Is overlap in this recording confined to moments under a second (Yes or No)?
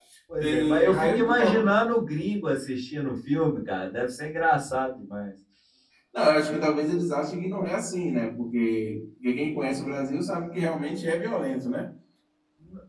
No